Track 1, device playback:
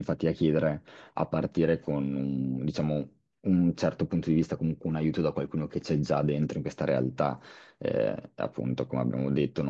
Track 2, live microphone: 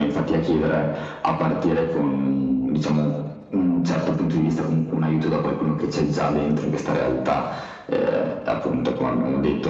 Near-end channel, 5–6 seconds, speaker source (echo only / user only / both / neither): echo only